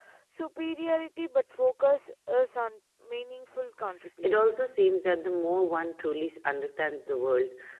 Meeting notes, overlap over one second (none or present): none